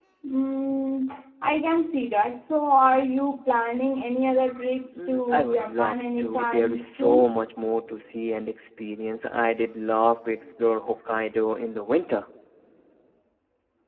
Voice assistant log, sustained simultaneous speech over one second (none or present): present